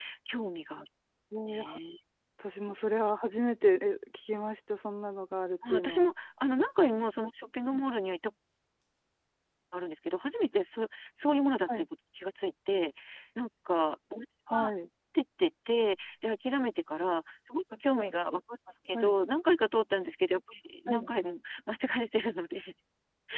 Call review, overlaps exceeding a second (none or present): none